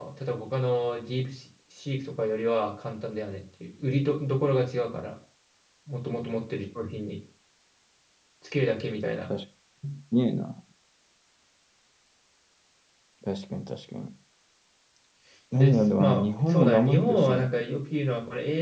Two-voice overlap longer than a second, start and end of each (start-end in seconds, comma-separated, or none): 15.5-17.5